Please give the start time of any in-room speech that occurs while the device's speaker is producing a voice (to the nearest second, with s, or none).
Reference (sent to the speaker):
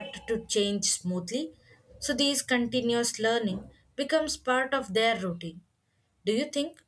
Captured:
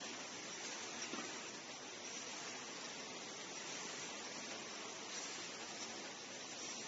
none